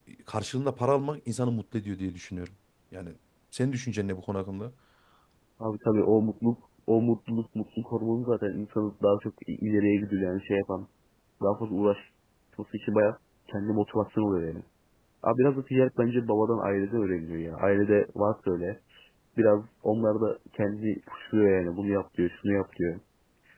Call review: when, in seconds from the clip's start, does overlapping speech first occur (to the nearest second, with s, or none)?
none